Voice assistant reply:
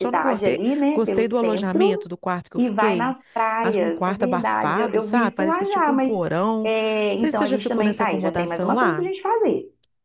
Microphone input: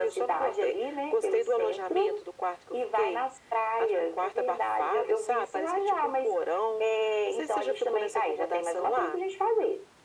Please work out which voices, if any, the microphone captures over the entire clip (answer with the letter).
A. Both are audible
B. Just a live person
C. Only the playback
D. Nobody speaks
C